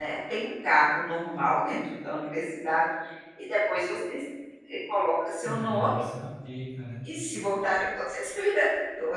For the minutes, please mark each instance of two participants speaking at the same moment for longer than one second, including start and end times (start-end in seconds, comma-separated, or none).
none